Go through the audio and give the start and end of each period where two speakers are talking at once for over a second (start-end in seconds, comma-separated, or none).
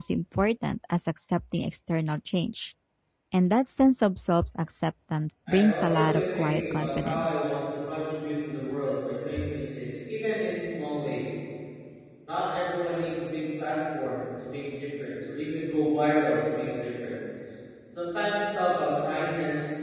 5.5-7.5